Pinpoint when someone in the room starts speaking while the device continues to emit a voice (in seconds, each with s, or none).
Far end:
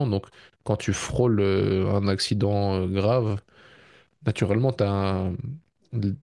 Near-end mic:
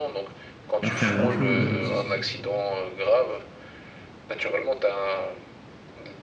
0.6 s